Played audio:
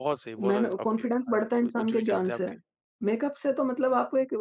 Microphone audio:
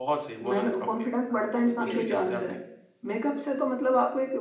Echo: present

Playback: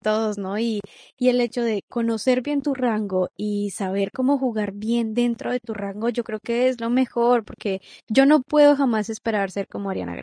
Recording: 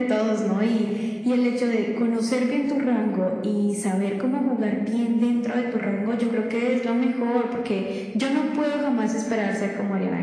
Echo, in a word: present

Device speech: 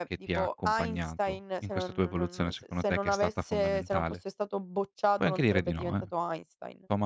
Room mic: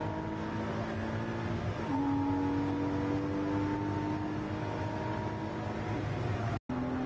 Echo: none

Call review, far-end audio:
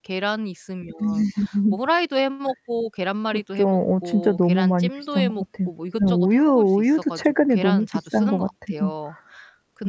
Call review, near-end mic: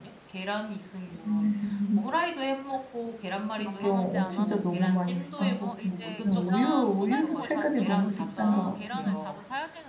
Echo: present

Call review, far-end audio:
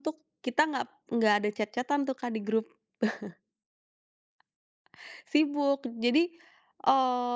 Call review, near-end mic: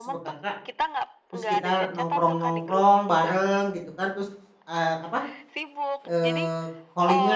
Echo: present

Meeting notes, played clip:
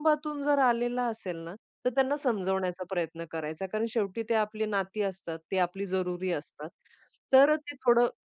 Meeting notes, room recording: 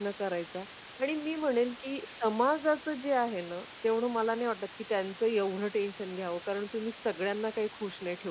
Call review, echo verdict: none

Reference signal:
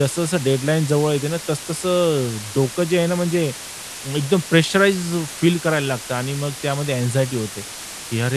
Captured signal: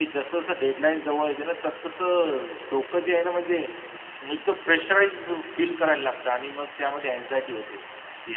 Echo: present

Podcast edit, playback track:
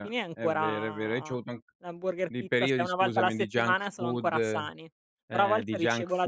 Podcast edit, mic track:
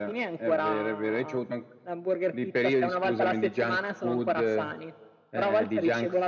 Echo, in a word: present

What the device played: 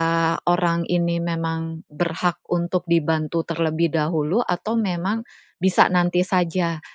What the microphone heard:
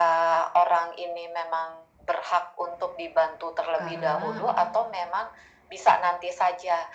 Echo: present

